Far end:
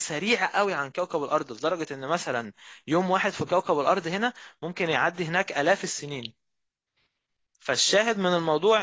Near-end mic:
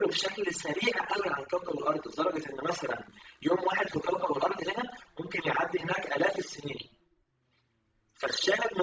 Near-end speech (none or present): none